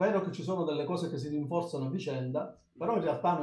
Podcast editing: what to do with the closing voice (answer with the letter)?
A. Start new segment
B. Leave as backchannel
B